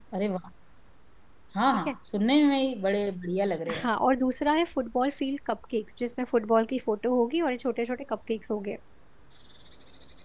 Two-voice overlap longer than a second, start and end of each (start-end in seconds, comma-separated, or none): none